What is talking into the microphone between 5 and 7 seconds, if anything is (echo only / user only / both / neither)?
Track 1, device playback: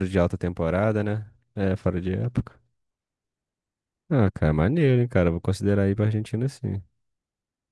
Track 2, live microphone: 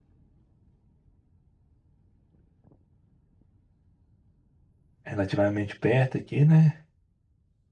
user only